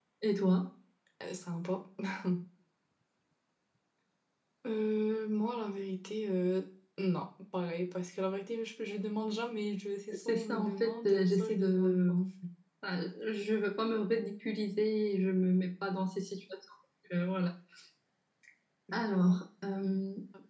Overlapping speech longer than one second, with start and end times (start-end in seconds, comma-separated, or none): 10.1-12.2